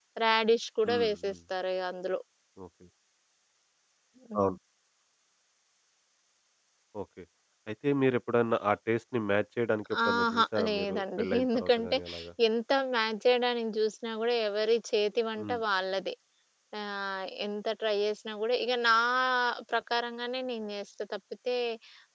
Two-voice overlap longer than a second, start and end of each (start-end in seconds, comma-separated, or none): 10.1-12.0